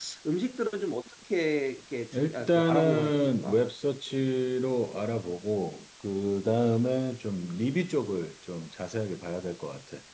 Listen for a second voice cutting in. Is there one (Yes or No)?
Yes